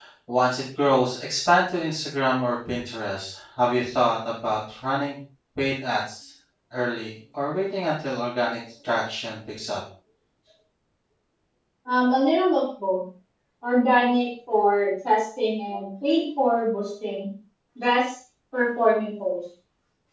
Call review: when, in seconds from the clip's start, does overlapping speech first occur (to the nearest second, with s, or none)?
none